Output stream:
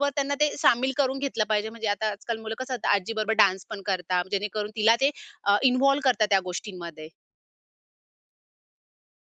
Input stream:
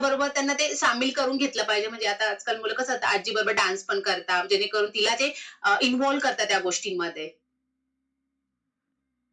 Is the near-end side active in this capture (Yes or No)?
No